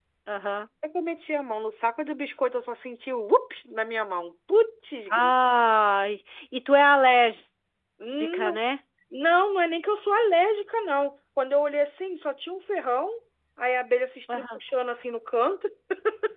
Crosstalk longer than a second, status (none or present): none